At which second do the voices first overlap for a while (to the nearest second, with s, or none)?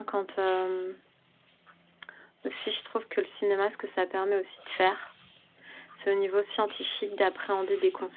none